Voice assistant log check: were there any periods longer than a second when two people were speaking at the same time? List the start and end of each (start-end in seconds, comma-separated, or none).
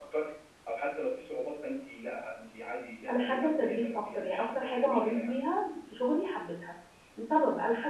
3.1-5.3